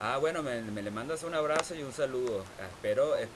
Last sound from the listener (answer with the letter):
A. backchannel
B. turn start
A